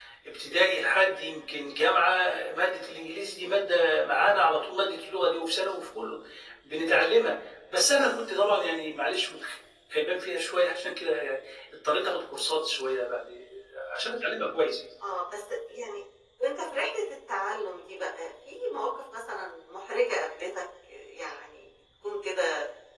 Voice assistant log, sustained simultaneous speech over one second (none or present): none